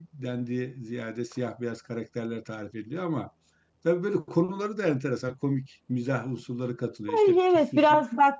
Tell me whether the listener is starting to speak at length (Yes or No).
Yes